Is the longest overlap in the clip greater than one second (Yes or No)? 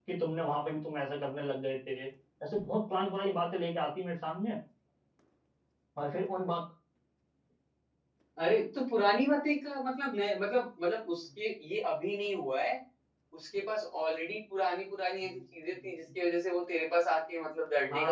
No